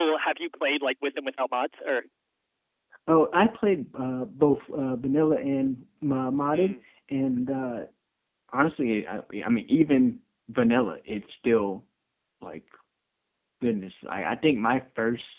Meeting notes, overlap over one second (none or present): none